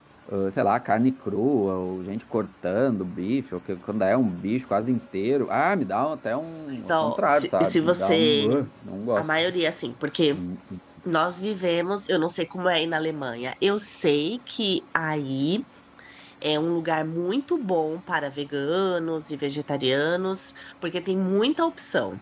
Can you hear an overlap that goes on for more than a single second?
Yes, from 6.7 s

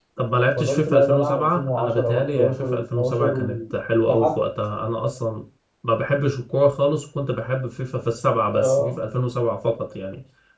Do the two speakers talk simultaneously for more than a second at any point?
Yes, from 0.6 s

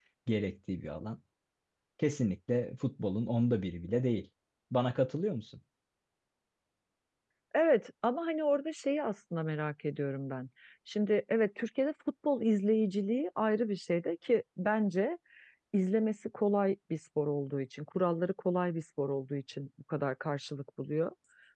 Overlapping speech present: No

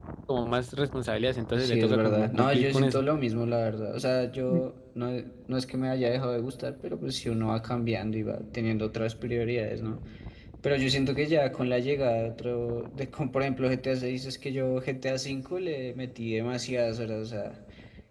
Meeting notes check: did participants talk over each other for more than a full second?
Yes, from 1.6 s

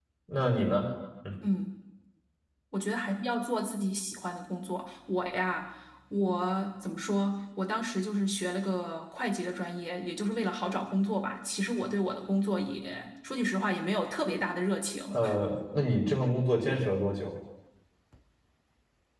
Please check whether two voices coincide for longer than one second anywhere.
No

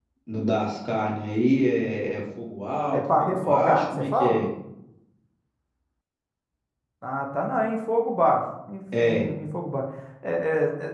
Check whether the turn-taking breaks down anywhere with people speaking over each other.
Yes, from 2.9 s

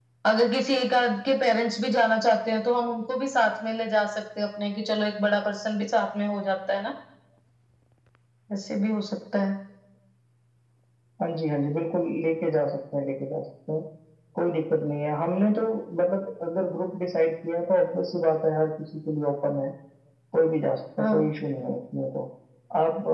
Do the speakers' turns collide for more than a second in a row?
No

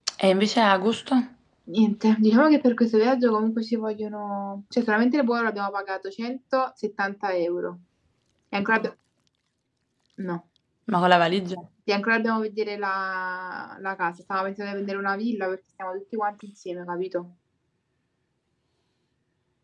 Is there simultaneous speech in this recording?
No

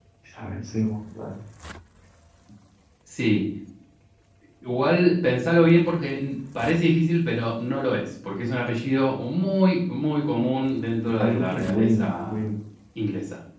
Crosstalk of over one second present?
Yes, from 11.1 s

